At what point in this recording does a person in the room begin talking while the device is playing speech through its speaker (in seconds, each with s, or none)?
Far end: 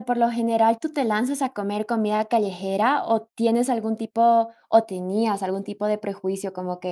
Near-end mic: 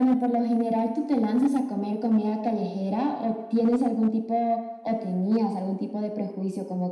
none